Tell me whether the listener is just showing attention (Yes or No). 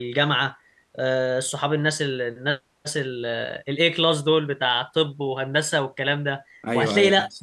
Yes